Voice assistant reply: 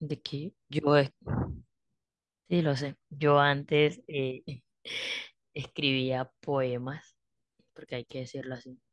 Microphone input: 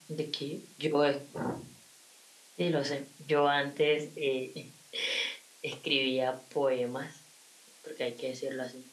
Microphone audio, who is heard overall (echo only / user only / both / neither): echo only